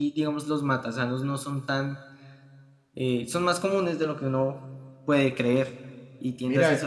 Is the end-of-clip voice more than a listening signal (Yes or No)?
No